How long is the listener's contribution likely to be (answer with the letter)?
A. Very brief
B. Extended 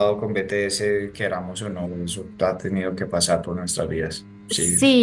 B